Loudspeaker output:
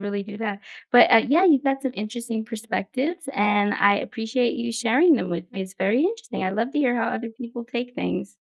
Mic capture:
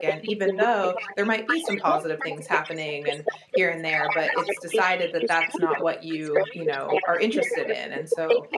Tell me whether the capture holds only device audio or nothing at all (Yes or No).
No